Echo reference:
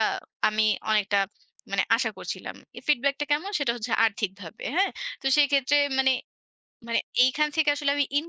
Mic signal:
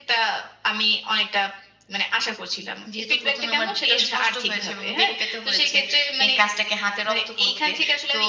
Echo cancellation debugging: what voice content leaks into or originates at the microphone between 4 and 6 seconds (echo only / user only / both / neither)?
both